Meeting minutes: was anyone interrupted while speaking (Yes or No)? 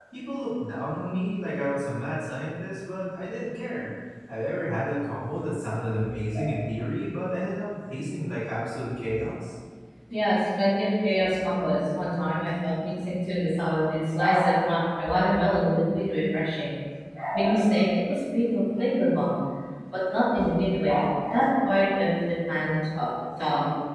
No